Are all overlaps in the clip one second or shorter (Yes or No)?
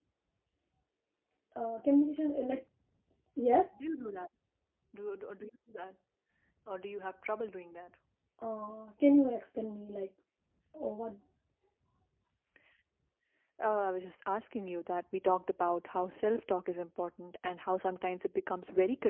Yes